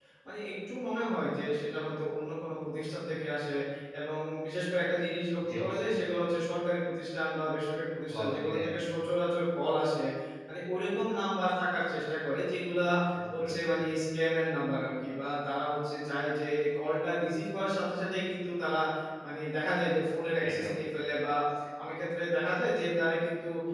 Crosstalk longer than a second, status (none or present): none